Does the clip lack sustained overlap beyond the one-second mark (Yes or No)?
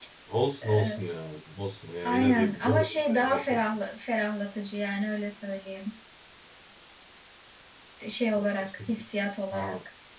No